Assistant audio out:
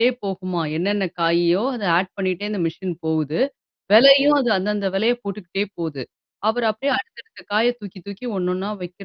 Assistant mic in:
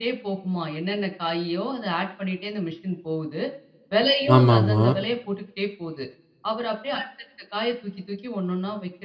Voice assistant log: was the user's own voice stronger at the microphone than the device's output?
Yes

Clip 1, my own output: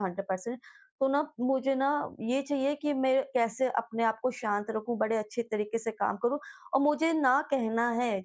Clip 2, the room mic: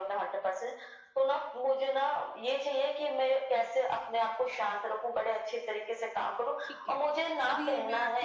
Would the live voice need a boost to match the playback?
Yes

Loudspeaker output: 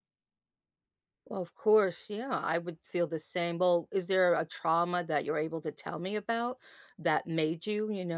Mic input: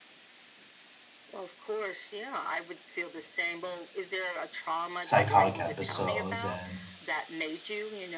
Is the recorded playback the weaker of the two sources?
Yes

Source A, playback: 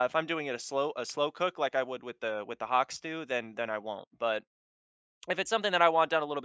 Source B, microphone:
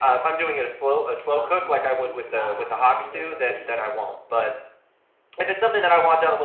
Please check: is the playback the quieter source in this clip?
No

